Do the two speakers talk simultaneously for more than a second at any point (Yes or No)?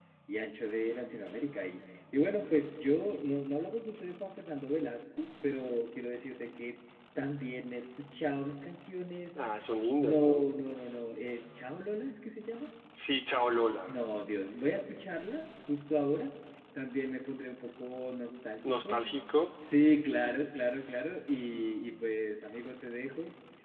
No